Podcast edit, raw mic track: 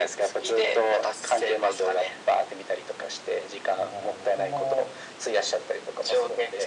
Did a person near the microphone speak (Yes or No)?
Yes